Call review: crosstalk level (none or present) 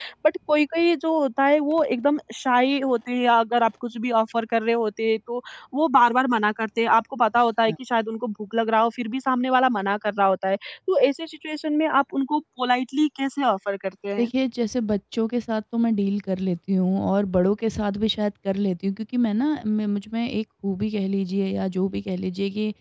none